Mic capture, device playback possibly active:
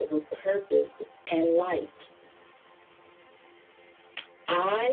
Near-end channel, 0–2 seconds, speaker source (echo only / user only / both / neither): echo only